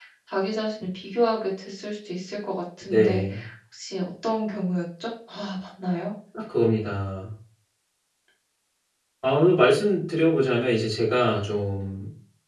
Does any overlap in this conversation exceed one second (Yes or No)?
No